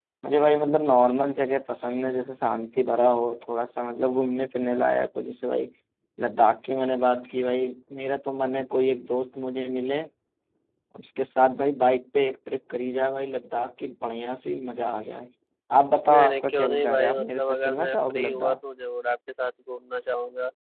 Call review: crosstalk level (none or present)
present